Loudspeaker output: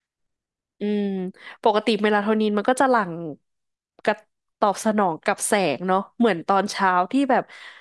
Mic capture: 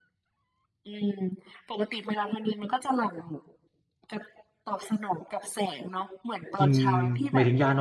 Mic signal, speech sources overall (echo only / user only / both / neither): both